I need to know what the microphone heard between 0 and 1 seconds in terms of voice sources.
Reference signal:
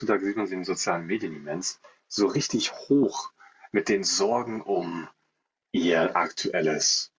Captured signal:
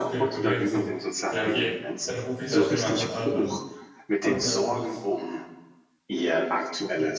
both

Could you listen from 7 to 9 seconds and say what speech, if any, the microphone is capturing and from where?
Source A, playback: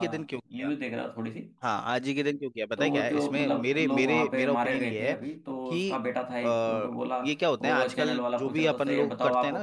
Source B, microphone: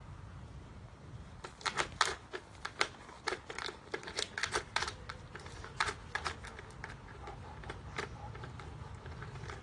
neither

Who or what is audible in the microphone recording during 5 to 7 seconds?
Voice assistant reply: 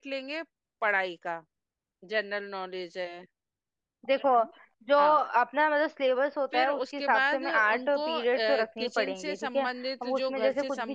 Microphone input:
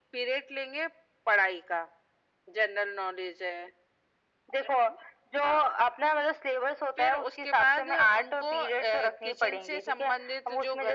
echo only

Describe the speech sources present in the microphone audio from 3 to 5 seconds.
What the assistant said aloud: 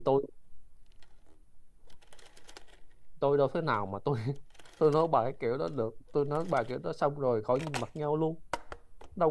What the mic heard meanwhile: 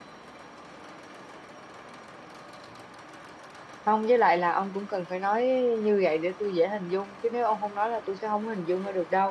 user only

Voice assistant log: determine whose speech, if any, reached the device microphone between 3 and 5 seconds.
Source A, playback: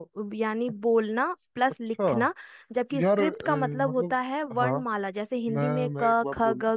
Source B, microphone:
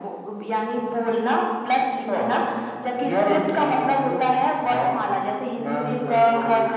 echo only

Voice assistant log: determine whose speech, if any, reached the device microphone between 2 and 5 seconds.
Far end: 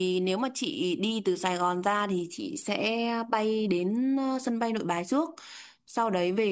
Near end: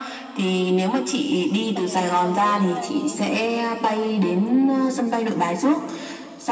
both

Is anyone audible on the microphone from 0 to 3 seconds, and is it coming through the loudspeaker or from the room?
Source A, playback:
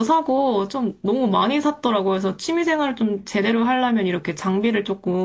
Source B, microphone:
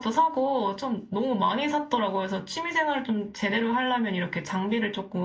echo only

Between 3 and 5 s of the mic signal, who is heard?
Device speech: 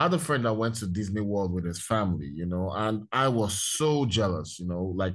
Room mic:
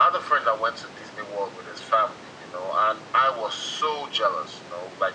echo only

